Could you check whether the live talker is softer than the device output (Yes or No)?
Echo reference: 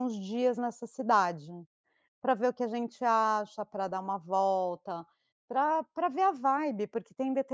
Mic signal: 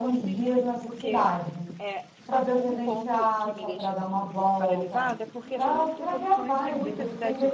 Yes